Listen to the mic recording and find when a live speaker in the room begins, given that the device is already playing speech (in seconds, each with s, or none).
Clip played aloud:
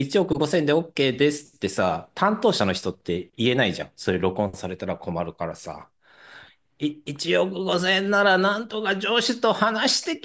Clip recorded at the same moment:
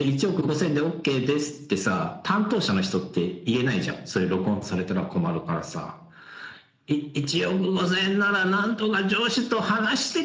none